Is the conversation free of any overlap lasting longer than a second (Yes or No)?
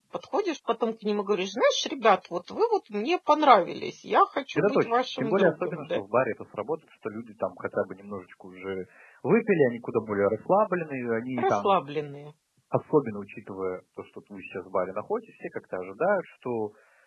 No